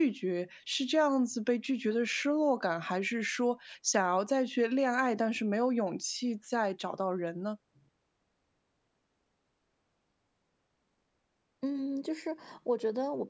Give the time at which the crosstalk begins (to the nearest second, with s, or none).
none